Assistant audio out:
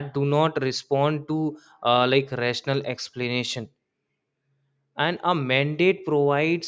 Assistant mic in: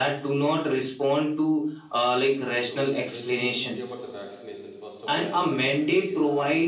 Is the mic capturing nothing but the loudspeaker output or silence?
No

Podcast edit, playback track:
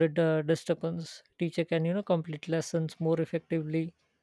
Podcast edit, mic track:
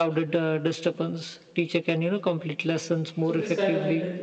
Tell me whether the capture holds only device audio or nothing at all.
No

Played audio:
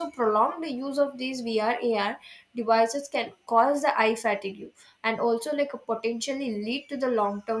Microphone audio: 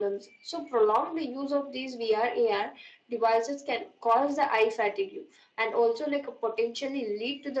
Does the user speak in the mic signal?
No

